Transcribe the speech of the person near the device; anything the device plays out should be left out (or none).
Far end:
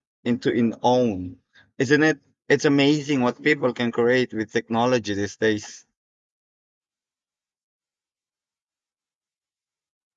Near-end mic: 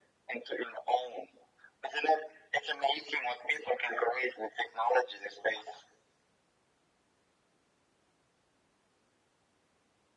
none